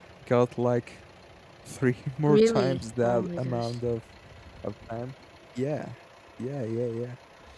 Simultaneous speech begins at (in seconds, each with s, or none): 2.3 s